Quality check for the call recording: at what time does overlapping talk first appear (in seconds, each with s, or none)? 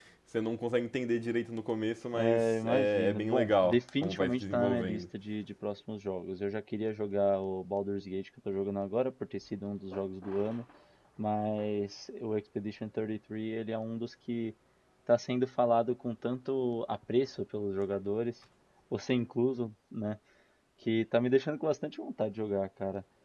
2.1 s